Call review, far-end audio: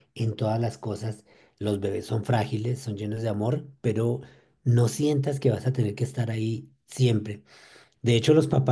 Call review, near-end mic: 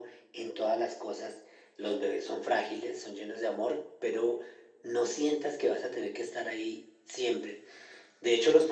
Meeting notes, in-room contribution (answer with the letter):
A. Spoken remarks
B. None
B